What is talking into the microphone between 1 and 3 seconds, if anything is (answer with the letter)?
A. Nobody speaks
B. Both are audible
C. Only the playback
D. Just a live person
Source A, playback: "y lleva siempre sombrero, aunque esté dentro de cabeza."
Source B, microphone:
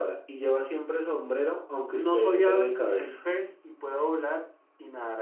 B